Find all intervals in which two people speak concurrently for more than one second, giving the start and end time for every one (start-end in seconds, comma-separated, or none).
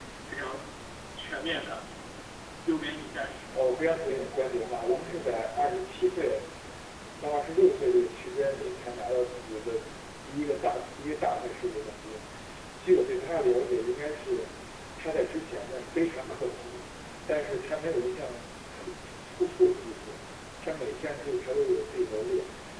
3.5-5.8